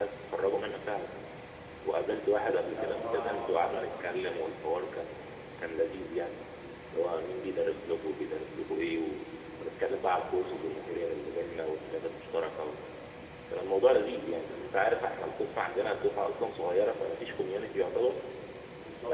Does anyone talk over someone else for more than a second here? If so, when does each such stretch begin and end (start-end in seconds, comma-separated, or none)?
2.7-3.9